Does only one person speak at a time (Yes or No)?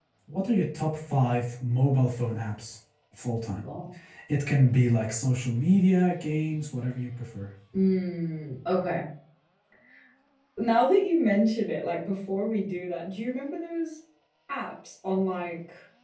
Yes